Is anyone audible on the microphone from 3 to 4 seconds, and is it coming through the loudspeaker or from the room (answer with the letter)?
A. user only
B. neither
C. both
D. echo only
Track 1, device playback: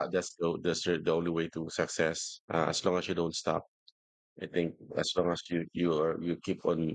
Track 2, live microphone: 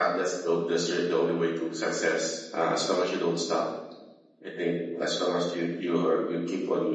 D